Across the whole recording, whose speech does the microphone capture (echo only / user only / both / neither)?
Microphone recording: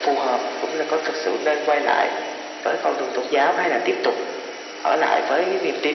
echo only